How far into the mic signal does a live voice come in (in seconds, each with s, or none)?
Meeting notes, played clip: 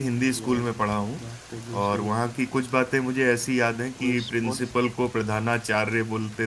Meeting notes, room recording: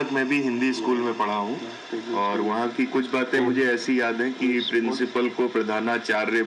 3.2 s